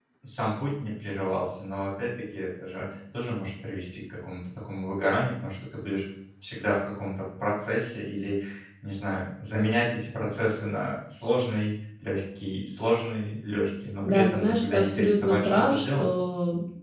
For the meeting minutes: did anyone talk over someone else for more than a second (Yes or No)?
Yes